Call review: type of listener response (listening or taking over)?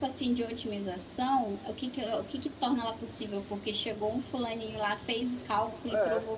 listening